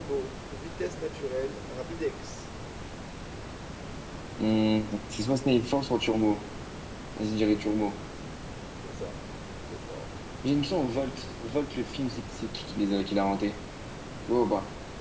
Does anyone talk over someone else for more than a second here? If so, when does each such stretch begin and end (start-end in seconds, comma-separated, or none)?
none